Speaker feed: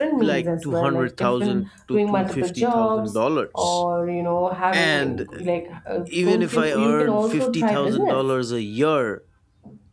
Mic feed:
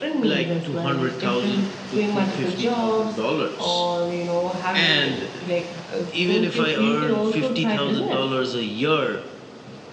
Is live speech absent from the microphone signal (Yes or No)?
Yes